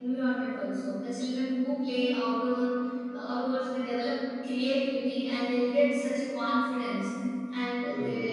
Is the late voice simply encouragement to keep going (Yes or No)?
Yes